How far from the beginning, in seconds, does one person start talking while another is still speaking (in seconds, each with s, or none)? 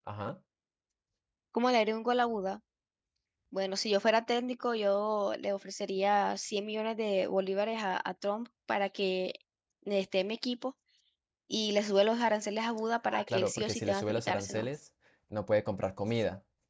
13.1 s